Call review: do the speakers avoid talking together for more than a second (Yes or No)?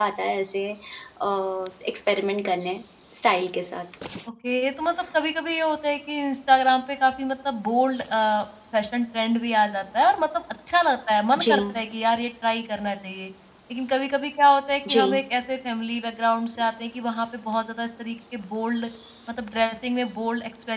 Yes